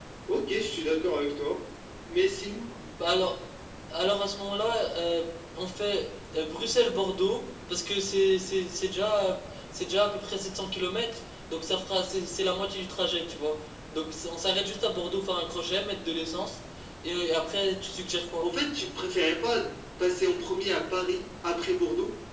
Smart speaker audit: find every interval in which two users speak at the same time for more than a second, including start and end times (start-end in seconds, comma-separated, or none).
none